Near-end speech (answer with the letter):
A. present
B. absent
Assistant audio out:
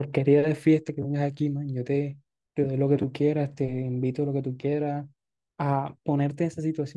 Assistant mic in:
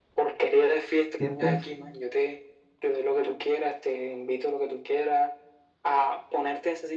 A